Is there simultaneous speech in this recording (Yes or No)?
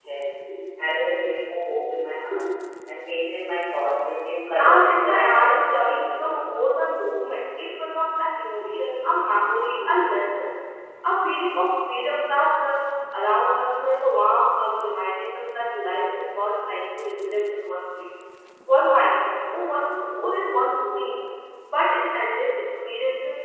Yes